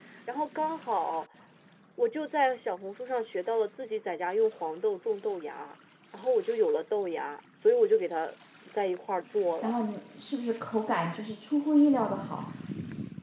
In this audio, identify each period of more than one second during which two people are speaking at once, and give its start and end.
none

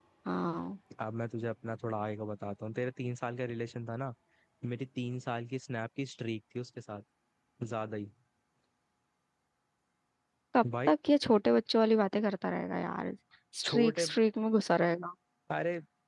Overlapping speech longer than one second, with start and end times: none

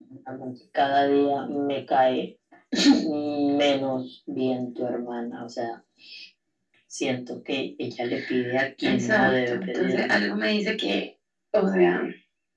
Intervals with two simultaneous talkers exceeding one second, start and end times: 8.8-10.2

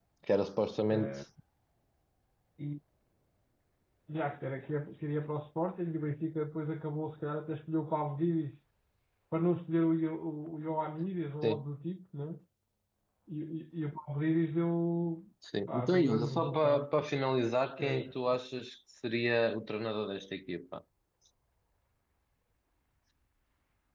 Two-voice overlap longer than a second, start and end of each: 15.7-16.9

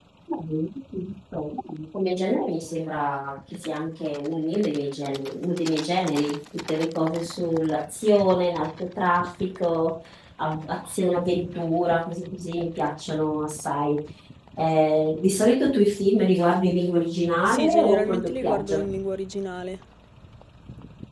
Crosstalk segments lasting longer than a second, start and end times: 17.5-18.8

